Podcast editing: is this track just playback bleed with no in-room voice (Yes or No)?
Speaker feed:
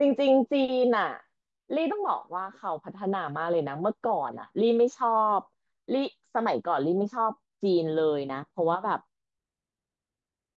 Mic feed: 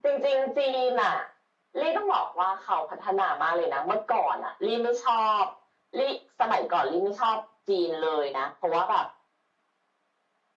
Yes